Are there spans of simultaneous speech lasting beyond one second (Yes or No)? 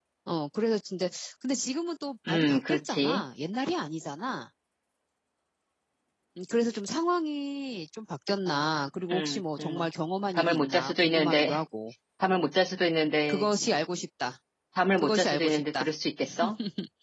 Yes